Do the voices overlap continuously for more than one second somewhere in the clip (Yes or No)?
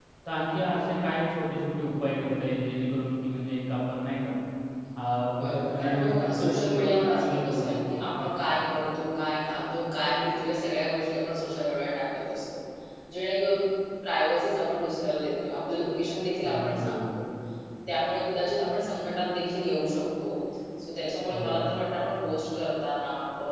Yes